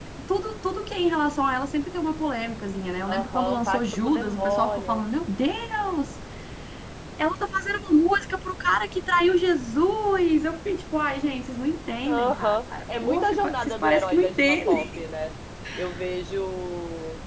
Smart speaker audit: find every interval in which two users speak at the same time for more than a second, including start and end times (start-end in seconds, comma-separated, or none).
3.1-5.0, 12.1-15.0